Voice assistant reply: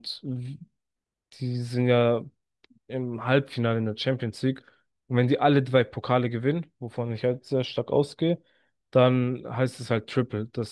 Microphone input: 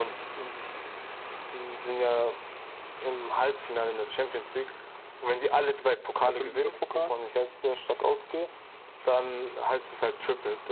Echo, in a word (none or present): present